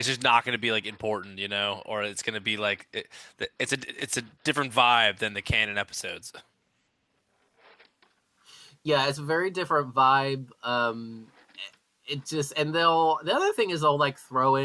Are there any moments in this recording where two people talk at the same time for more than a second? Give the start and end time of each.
none

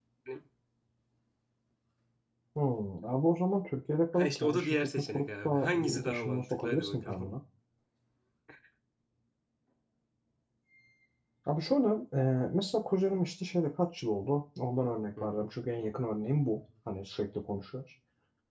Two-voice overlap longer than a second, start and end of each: 4.1-7.3

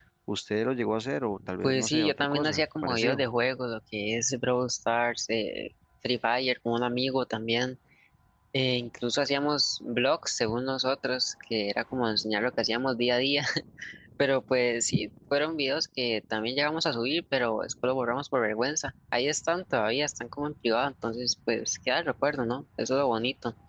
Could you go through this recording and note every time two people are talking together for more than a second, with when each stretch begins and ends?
1.6-3.3

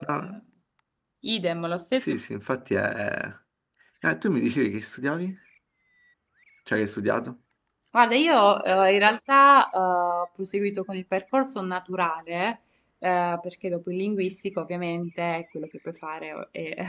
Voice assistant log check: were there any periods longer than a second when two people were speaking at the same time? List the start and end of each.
none

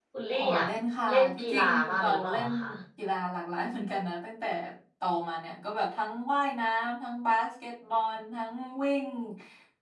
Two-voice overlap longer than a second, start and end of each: 1.1-2.5

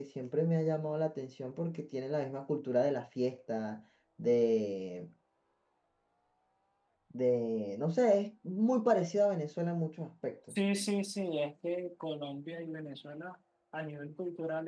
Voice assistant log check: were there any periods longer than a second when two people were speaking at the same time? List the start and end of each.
none

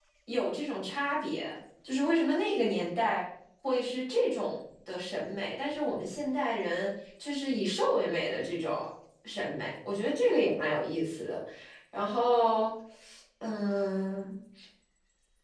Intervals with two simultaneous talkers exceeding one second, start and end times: none

